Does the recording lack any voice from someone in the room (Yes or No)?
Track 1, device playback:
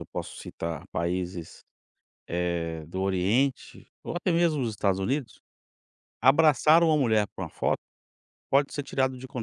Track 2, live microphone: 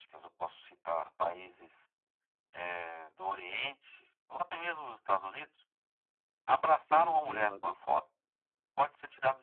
No